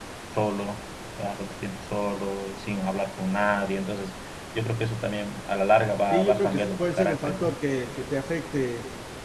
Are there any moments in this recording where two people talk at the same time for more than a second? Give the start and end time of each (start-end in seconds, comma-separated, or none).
6.1-7.5